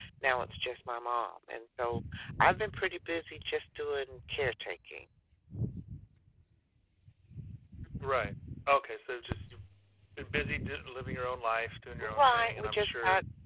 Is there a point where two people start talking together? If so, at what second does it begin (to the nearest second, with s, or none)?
12 s